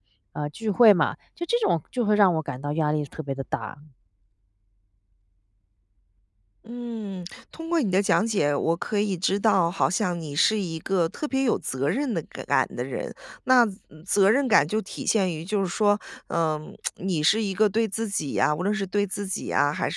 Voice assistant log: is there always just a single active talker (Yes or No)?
Yes